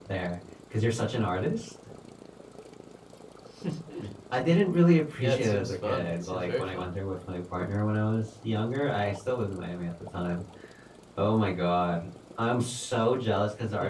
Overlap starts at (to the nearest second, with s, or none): 5 s